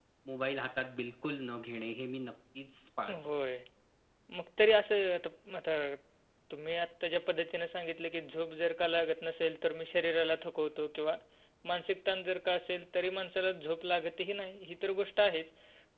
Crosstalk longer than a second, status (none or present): none